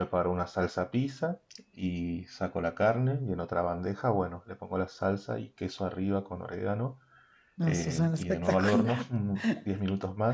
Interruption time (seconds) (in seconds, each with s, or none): 7.6 s